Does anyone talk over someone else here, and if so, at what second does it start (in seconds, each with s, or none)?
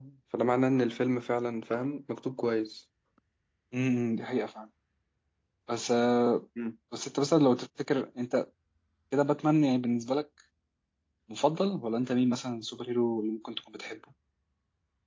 none